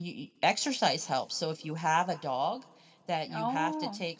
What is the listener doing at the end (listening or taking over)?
listening